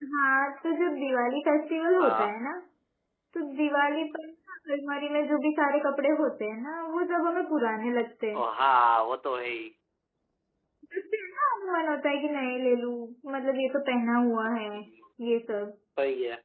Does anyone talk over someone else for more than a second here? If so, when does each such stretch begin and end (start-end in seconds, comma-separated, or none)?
none